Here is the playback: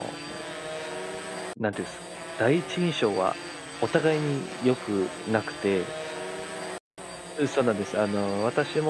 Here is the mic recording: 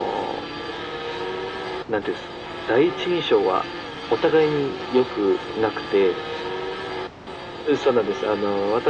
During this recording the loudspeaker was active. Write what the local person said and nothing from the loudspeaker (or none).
none